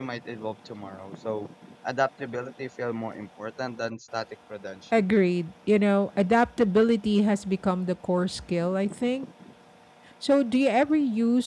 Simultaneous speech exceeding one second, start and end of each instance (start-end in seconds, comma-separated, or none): none